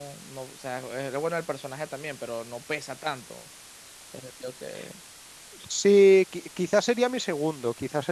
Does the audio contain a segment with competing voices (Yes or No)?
No